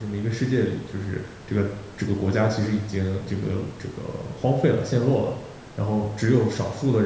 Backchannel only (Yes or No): Yes